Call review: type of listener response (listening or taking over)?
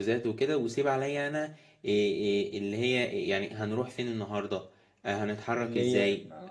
listening